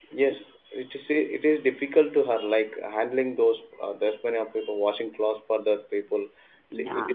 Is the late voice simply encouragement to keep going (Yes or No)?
No